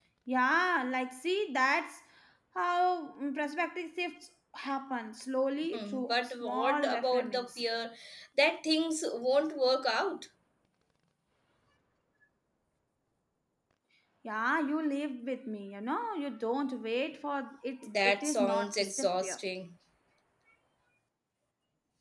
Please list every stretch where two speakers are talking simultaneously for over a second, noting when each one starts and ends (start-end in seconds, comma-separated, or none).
5.7-7.6, 17.9-19.4